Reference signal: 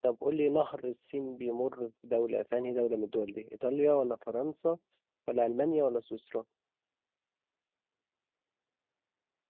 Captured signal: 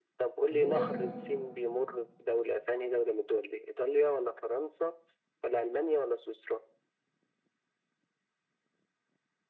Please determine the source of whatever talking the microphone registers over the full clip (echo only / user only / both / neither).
both